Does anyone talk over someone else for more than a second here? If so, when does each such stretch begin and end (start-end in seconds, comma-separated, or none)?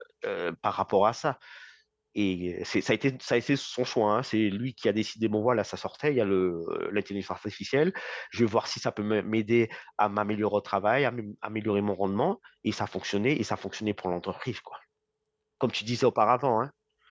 none